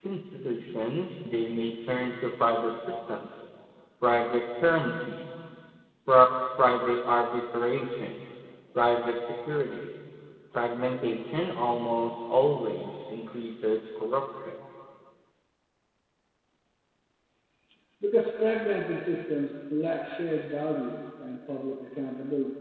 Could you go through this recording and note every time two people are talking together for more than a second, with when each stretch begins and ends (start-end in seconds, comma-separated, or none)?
none